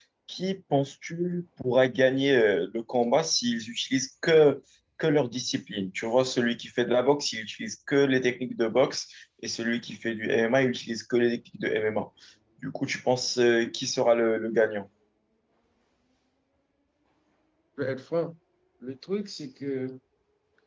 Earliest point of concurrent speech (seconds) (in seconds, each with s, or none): none